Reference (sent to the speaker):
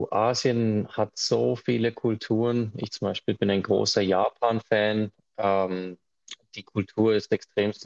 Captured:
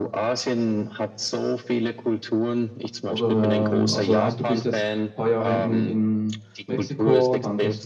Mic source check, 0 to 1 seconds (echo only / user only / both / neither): echo only